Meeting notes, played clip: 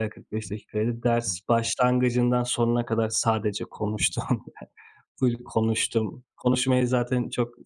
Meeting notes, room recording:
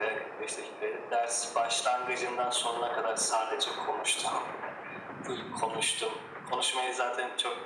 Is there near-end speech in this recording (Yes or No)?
No